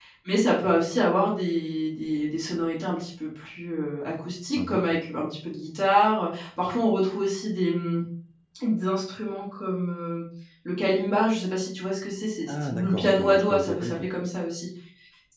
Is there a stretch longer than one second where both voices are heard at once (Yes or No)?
Yes